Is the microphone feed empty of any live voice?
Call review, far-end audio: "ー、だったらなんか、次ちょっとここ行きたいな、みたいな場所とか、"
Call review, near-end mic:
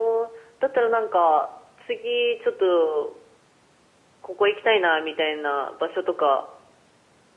Yes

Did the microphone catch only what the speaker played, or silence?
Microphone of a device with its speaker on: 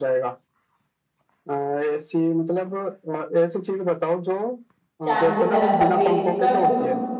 No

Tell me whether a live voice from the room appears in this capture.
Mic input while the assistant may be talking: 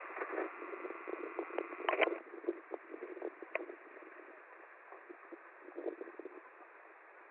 No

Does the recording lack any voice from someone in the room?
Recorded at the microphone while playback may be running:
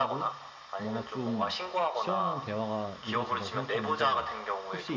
No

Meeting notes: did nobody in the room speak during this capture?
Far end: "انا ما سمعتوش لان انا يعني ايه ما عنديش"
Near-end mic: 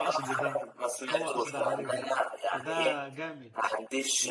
No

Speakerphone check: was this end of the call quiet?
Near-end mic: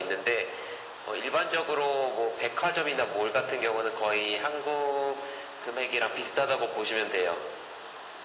Yes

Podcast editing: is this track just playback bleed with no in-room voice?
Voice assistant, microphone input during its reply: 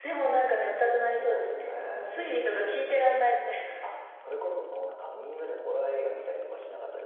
Yes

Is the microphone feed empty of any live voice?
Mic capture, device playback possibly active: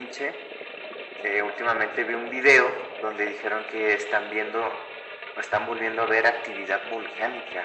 Yes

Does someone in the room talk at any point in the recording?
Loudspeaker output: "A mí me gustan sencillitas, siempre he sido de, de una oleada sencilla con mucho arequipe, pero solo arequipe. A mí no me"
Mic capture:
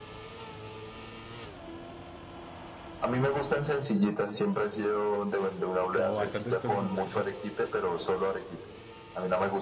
Yes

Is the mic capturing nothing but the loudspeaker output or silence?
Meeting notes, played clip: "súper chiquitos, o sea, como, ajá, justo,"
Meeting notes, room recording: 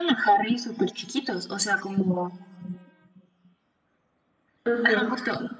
No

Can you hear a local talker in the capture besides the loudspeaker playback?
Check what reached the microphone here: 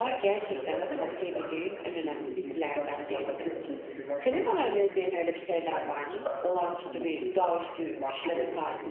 Yes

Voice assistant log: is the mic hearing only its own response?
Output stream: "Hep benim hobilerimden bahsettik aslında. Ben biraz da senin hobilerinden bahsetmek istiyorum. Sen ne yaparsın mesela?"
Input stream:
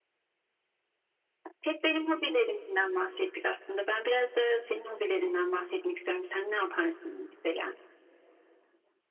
Yes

